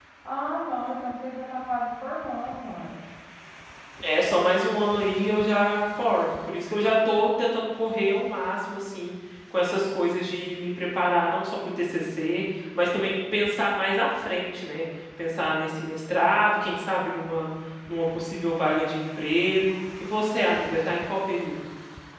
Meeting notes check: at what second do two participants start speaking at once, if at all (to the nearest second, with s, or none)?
none